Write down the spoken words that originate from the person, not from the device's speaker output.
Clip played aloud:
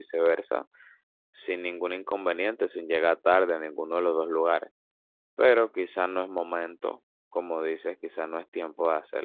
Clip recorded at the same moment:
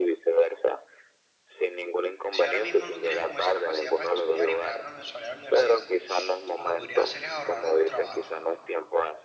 si ahora mismo no tienes como esa capacidad para estudiar y pagar una mensualidad a la universidad, lo que podrías hacer es ahorrar de tu trabajo,

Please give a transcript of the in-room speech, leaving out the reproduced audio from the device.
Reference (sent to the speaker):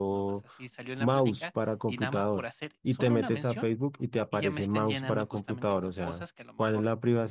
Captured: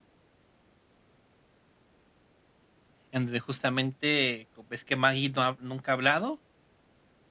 en donde justamente co- ves que Maggie no ha- nunca ha hablado

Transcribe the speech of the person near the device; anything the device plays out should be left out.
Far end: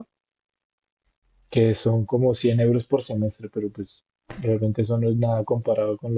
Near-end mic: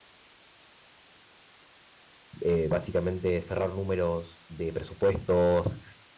eh, básicamente cerrar números de presupuestos,

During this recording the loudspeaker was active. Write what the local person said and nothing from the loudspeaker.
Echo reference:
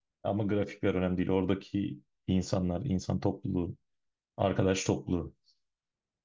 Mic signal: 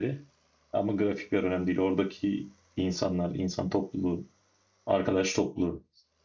none

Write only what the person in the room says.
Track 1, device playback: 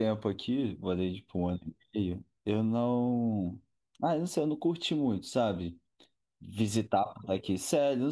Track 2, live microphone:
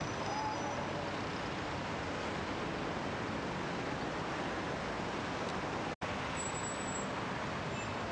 none

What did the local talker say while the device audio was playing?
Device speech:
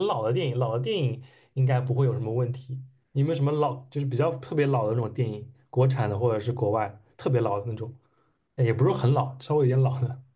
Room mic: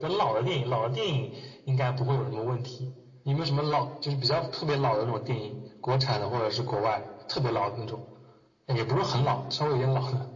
none

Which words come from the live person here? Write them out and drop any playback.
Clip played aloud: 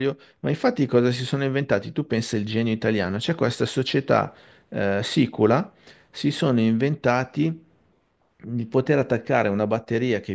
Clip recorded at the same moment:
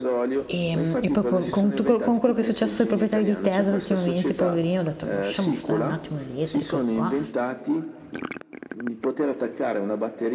E, e poi po- con, tu- con quello che è successo ai proprietari di Tesla ultimamente, poverino, ho detto, "Boh, lasciamo stare un attimo l'elettrico che qua.

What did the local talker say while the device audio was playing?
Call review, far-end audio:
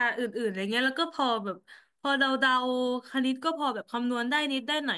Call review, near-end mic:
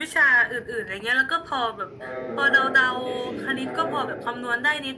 ตอนเรียนอนุบาลเนี่ยได้เกรดสี่ทุกครั้งเลย

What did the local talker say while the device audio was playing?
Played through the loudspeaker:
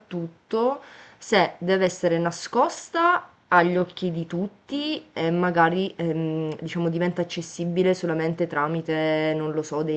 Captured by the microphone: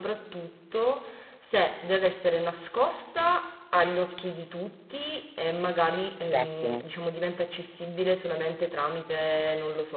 Ti piacciono?

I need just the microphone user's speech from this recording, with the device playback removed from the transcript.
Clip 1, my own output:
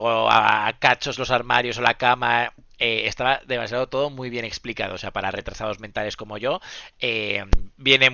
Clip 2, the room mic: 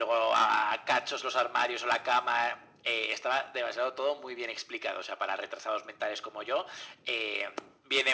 none

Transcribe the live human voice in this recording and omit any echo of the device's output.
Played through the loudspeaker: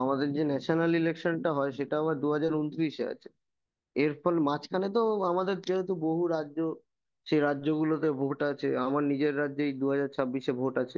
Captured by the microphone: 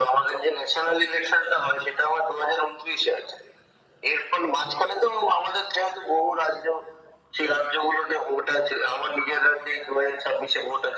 none

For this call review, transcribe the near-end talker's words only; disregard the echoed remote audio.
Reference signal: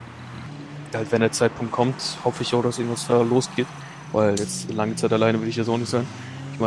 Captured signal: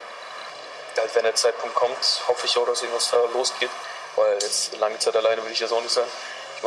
none

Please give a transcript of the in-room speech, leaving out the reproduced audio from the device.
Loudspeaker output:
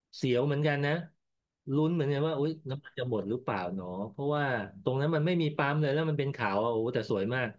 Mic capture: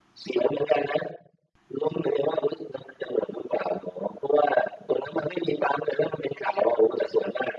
none

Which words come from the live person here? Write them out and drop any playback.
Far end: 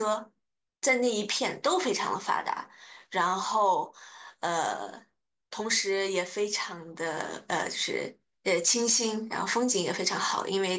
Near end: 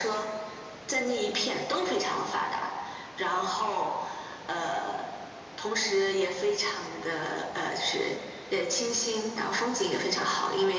none

